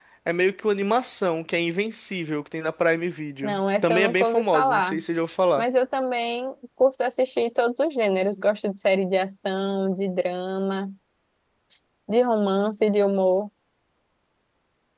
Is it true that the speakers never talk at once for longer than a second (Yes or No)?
No